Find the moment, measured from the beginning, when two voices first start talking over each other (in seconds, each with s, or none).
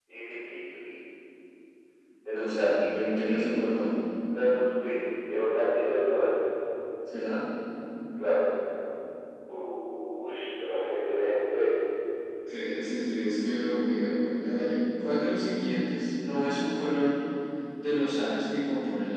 2.3 s